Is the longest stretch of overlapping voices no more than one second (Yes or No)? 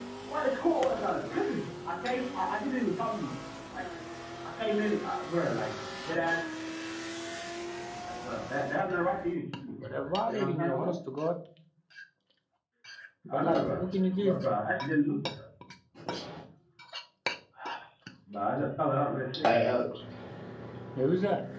No